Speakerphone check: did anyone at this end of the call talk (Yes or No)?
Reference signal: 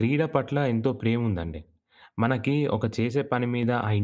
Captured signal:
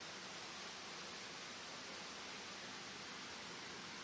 No